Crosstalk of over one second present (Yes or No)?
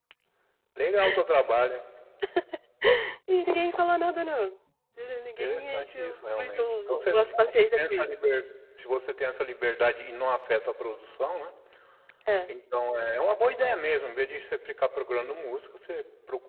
Yes